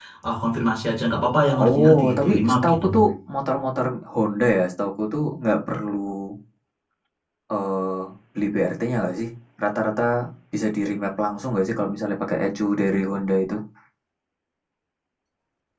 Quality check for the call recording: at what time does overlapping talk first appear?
1.6 s

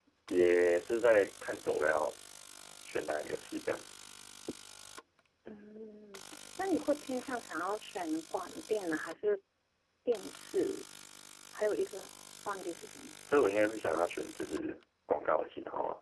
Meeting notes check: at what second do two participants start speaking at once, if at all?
none

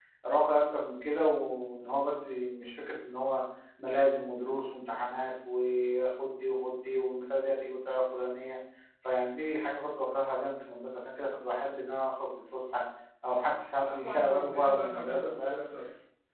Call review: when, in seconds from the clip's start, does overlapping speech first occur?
13.8 s

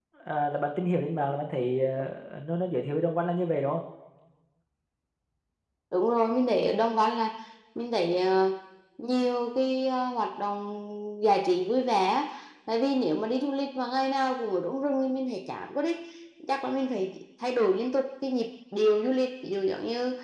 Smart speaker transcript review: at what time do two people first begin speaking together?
none

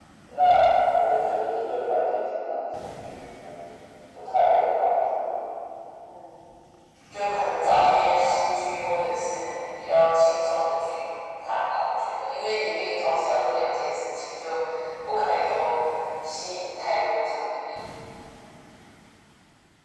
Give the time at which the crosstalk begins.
none

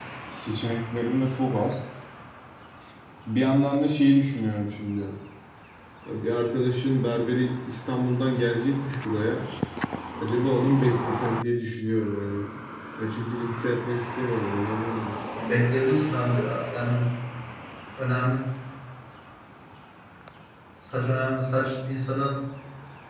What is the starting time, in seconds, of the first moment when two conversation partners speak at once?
none

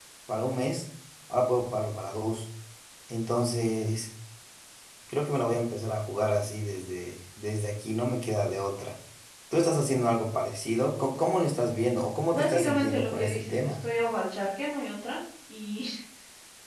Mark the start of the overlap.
12.3 s

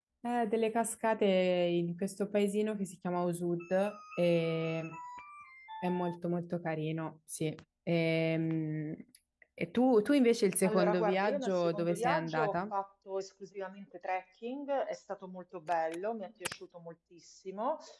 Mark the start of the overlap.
10.6 s

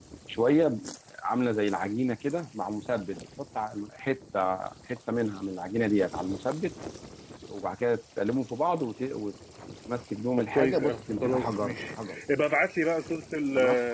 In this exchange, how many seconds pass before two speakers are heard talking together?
10.5 s

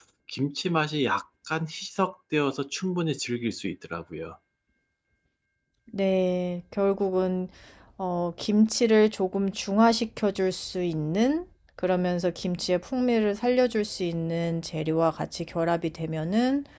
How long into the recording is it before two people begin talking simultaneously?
none

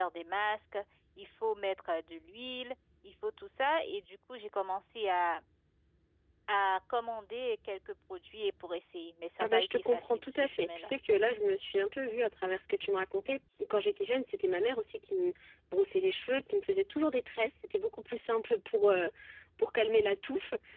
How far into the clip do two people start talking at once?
9.4 s

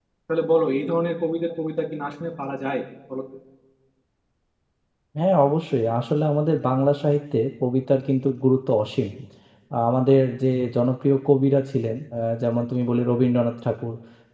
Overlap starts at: none

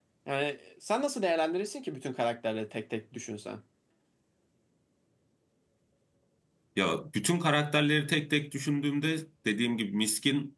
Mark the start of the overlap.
none

